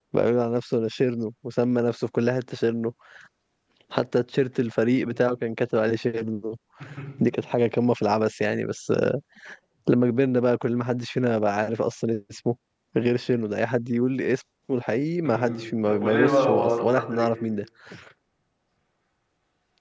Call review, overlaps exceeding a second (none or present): present